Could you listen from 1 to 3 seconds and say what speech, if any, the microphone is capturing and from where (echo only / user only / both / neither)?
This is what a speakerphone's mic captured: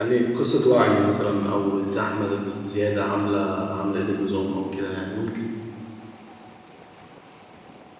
user only